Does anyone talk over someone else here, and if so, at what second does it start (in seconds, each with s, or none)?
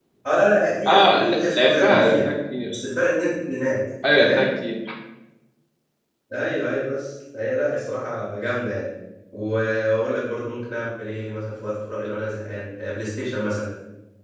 0.9 s